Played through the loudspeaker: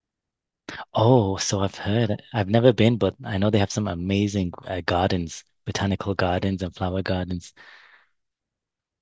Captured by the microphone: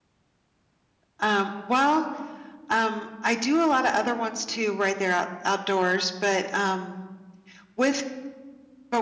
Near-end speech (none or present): present